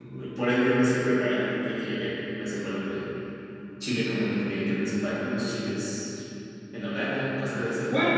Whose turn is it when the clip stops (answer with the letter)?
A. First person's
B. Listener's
B